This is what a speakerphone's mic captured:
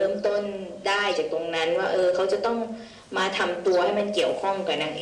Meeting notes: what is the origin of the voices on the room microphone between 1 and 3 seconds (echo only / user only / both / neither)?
echo only